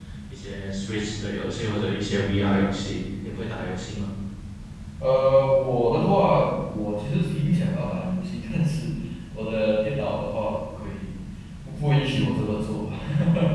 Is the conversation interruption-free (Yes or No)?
Yes